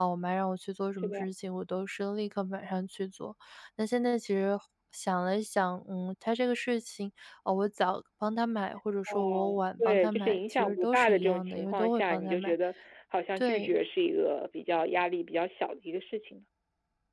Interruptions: present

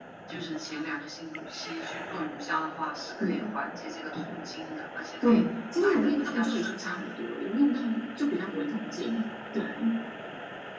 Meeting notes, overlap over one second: present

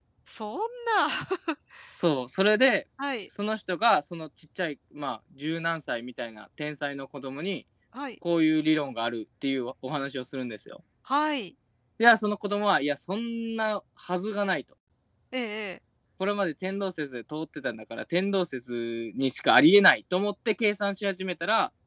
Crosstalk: none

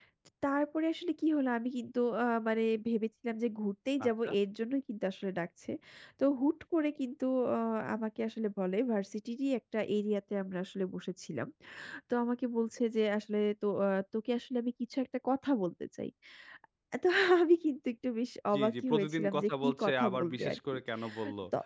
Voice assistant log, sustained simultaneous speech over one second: present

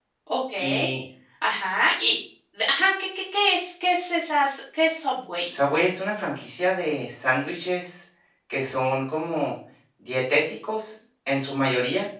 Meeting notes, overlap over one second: none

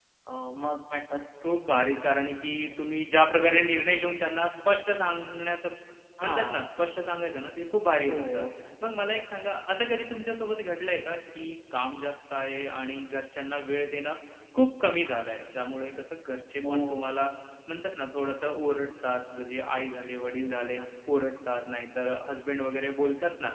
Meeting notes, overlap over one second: none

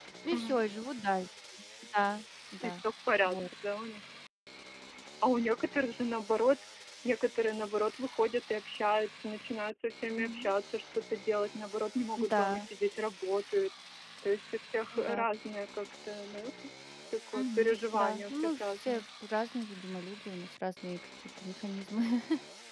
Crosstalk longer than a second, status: present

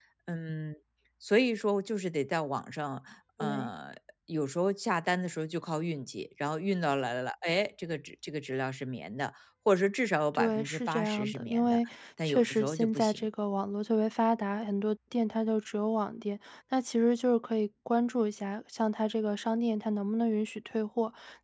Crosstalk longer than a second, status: present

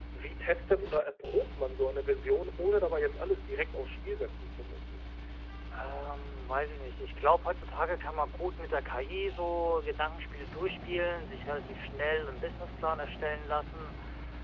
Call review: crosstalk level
none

